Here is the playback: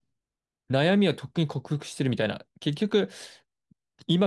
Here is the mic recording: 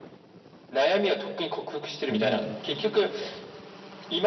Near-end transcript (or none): すごいな、それ。